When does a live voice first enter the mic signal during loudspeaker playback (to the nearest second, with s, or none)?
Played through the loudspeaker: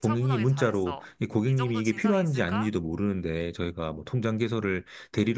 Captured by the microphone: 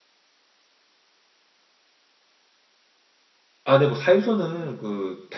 4 s